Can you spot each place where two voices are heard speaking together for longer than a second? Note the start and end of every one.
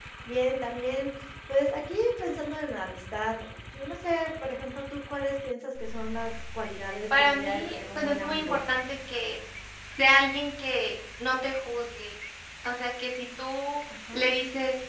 7.2-8.6

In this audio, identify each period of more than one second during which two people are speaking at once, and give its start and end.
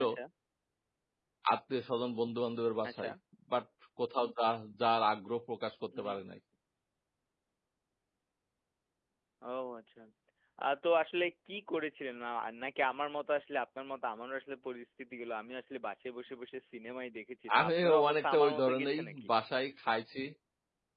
17.5-19.3

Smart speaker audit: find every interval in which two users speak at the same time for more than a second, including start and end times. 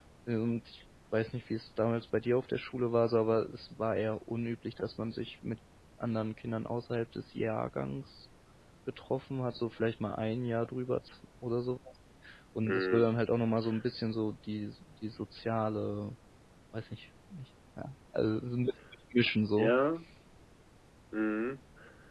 none

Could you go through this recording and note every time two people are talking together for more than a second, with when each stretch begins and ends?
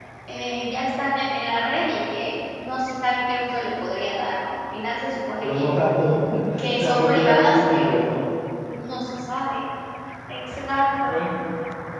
6.8-8.1

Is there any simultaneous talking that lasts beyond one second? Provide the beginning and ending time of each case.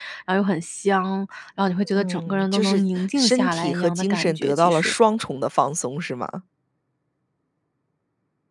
2.0-4.9

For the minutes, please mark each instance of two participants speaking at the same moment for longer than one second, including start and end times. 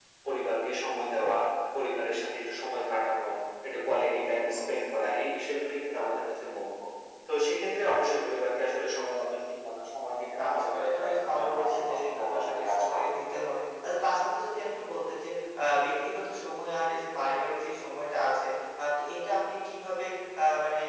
10.4-13.1

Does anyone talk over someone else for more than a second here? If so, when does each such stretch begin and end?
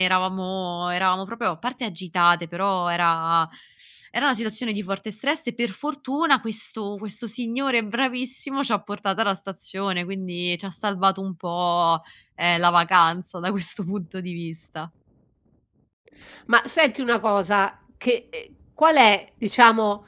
none

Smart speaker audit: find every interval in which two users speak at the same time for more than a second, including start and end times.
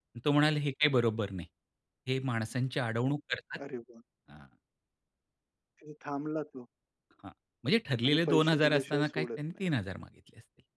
8.1-9.6

